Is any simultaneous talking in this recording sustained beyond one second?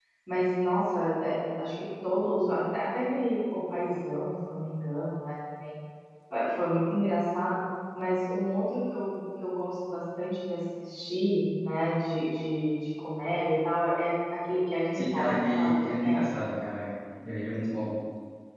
Yes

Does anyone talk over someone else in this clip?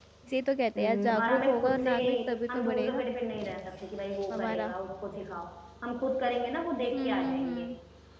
Yes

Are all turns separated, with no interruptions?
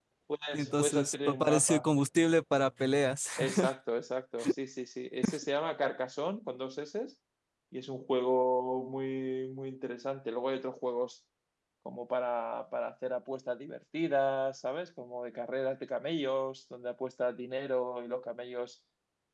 No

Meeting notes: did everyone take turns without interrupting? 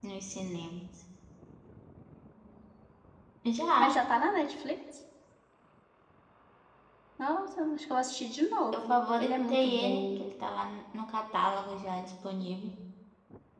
No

